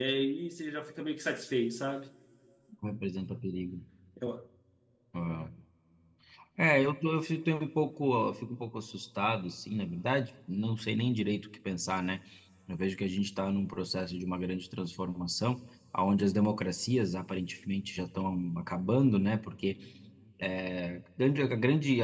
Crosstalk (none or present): none